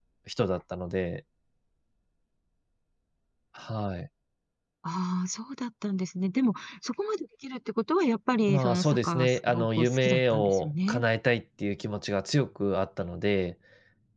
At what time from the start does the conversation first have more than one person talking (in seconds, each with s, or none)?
8.5 s